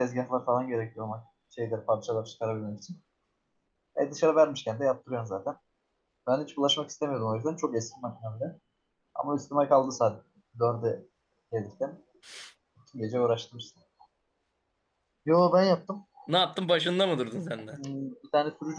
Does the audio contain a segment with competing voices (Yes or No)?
No